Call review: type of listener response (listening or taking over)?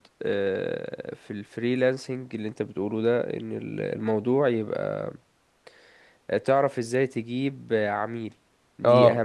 listening